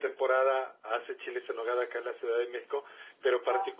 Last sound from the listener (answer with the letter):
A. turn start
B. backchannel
B